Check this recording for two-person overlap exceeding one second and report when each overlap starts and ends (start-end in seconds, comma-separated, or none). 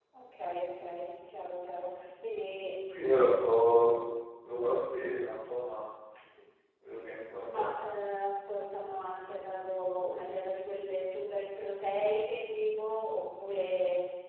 none